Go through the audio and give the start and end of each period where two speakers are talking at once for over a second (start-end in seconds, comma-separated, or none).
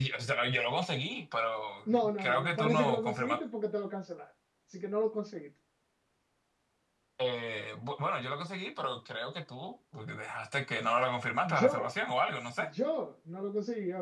1.9-3.4